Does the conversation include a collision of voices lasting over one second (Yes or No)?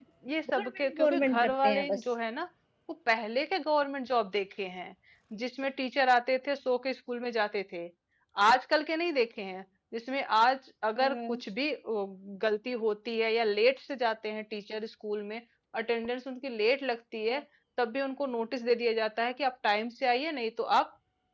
Yes